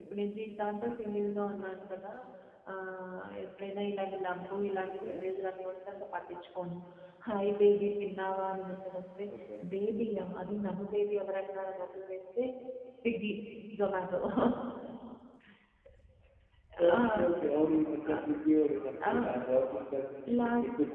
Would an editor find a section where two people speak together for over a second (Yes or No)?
No